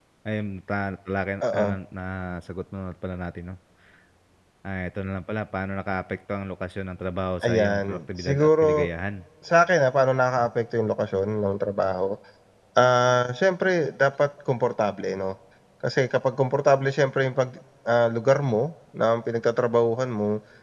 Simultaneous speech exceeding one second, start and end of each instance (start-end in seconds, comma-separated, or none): 7.4-8.9